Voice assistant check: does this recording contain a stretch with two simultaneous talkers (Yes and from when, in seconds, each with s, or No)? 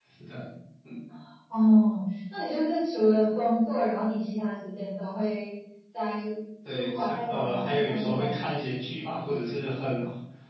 Yes, from 6.7 s